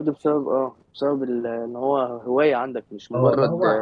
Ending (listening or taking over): taking over